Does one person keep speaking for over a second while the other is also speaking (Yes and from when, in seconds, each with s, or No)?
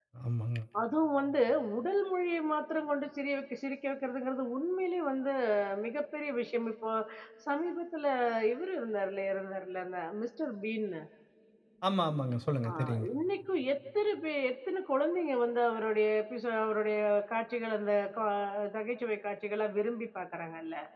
No